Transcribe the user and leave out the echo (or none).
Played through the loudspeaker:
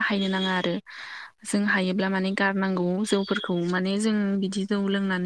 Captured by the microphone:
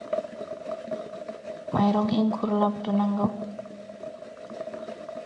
माइरं एंखुर लाग्रोनांगौ